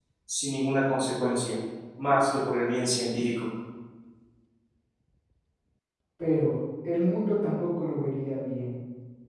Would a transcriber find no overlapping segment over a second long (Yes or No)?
Yes